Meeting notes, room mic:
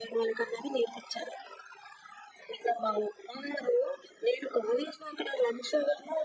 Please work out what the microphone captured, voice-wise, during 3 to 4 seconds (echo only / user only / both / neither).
echo only